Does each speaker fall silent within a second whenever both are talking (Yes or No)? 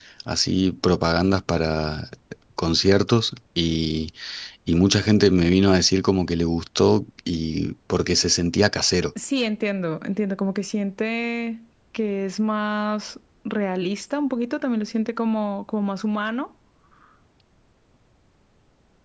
Yes